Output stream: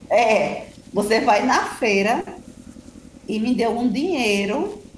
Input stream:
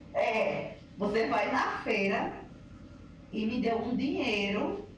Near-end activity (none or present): none